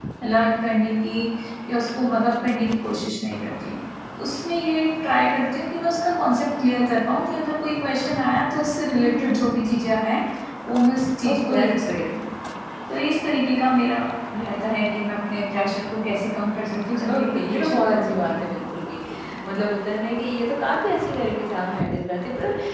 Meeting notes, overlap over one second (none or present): present